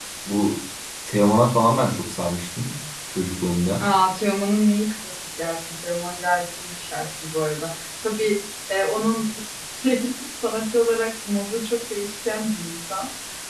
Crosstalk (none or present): none